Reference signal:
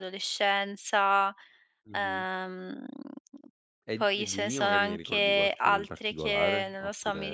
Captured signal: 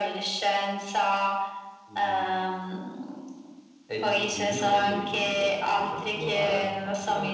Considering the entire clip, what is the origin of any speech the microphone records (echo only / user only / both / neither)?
echo only